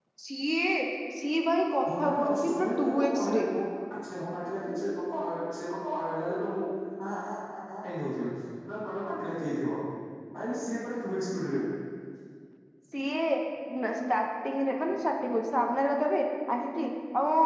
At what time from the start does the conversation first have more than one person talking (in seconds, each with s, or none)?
2.0 s